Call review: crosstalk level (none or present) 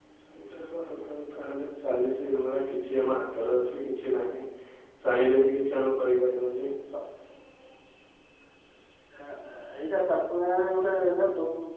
none